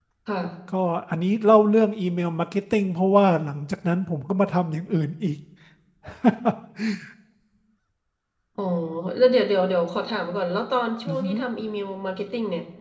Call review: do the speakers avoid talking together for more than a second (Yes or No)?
Yes